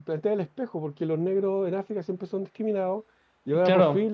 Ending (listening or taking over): listening